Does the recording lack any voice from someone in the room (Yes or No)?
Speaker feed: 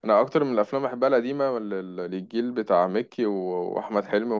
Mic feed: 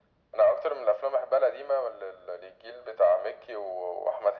Yes